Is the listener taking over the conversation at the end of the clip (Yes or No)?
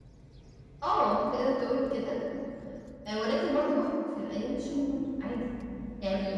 Yes